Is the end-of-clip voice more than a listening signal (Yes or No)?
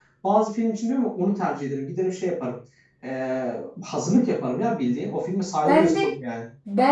Yes